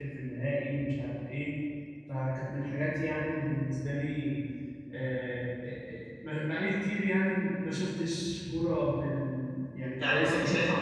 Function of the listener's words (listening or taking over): taking over